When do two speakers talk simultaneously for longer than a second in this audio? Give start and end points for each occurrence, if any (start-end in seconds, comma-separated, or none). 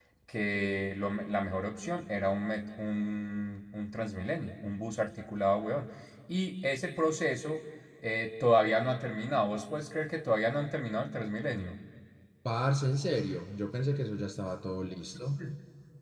none